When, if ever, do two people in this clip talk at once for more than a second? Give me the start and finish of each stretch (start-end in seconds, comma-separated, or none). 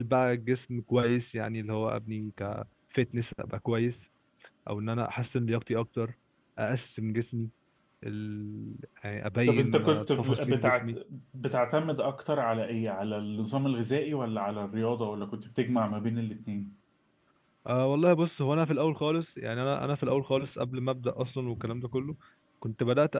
9.5-10.9